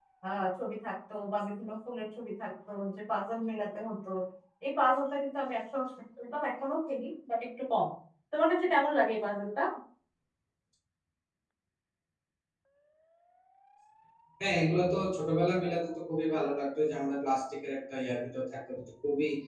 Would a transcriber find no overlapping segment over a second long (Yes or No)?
Yes